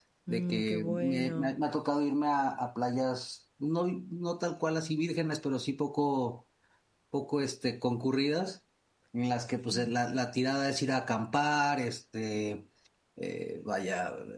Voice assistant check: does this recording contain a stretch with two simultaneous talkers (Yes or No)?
Yes